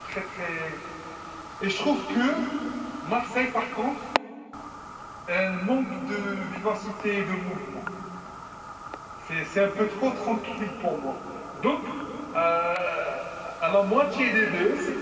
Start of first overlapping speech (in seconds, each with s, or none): none